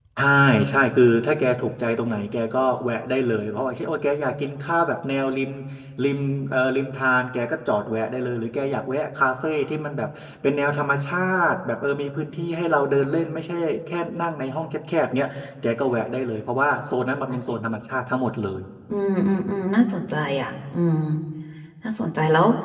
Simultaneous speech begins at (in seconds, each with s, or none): none